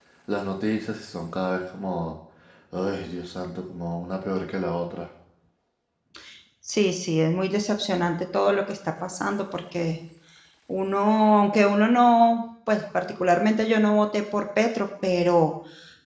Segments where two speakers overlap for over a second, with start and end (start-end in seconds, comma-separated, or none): none